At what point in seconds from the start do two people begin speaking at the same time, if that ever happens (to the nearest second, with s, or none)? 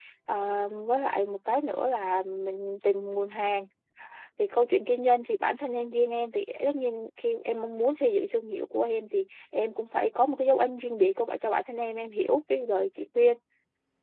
none